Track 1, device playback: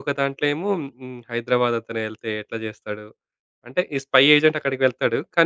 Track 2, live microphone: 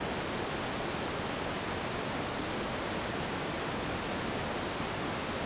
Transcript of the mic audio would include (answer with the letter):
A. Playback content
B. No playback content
B